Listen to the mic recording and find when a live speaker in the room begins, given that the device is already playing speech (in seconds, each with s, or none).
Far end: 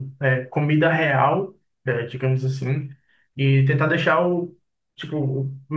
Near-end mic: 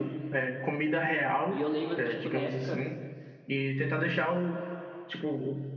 1.5 s